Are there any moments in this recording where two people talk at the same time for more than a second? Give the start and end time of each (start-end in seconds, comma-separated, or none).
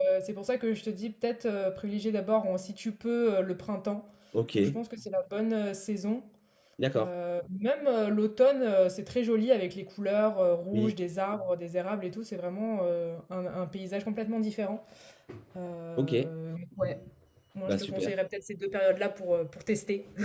none